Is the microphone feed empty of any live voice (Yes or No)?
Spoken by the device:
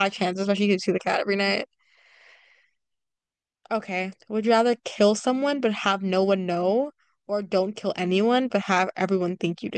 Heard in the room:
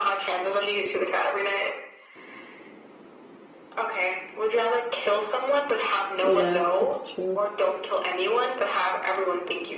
No